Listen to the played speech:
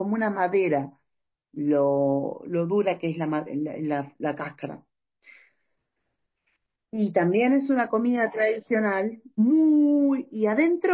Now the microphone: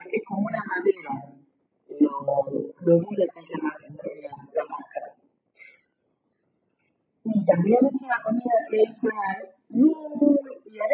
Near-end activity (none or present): none